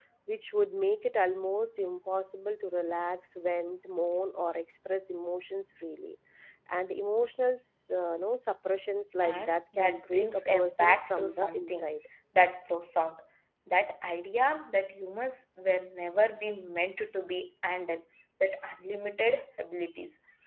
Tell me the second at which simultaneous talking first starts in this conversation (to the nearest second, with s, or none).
9 s